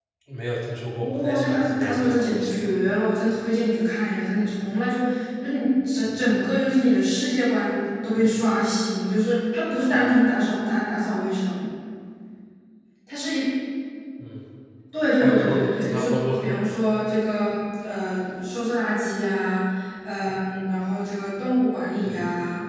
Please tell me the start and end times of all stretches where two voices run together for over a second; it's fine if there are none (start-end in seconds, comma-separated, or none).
1.0-2.6, 15.2-16.5